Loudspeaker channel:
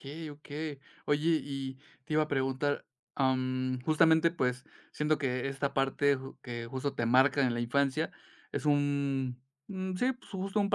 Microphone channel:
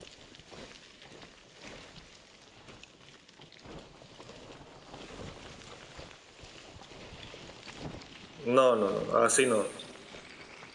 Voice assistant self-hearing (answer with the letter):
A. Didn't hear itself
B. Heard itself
A